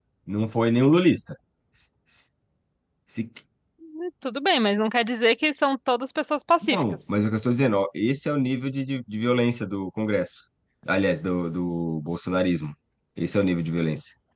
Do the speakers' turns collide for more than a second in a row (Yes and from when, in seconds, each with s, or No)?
No